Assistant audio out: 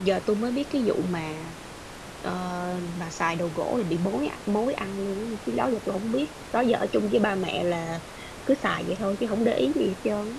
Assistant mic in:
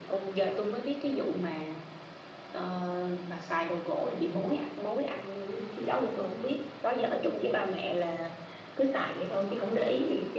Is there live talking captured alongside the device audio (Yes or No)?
No